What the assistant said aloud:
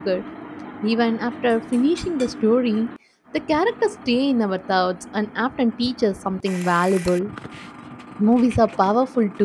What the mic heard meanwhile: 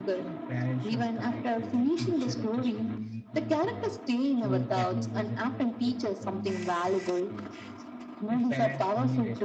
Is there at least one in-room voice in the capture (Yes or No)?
Yes